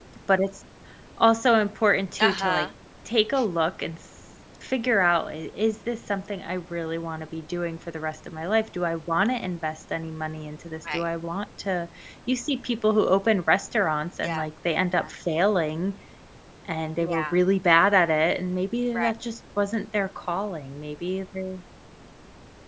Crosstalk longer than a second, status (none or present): none